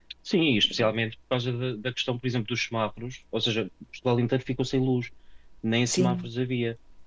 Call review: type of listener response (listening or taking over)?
listening